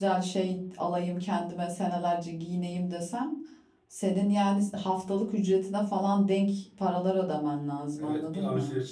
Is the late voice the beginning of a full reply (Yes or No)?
Yes